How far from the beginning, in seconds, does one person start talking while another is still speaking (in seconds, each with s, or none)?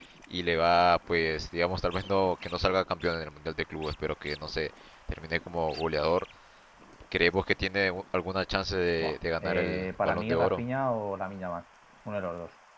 9.0 s